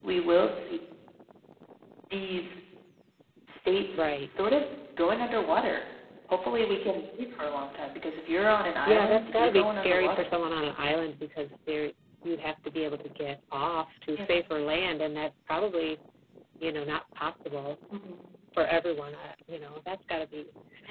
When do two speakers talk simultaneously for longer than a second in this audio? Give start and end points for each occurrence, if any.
8.9-10.3

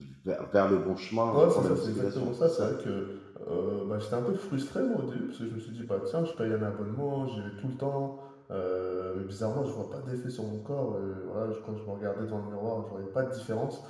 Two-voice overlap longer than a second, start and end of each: 1.3-2.7

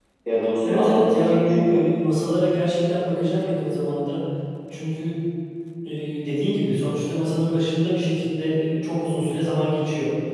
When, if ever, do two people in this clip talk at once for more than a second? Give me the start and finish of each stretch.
0.6-1.9

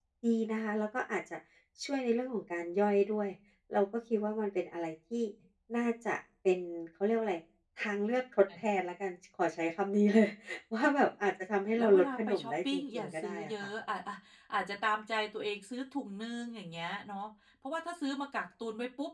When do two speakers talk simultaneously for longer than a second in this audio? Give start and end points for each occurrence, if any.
11.8-13.7

